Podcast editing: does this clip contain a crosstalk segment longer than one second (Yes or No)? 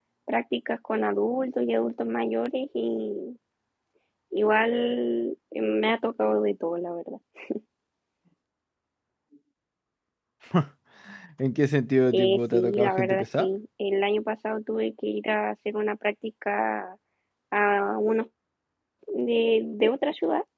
Yes